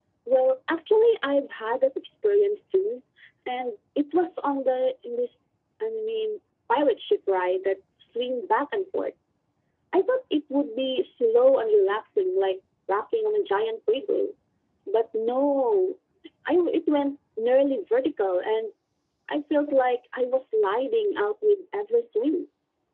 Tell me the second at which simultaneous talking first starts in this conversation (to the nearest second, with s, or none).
none